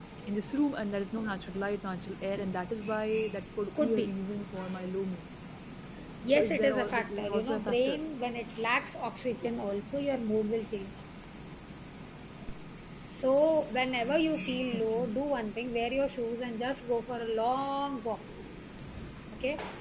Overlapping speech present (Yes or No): Yes